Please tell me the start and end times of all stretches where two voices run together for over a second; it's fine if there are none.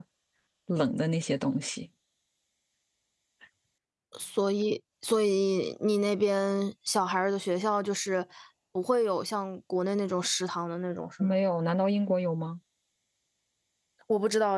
none

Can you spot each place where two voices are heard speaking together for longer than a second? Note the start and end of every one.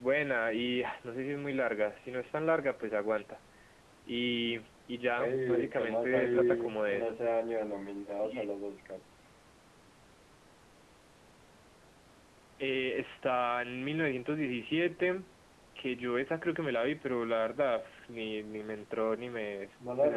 5.2-7.2

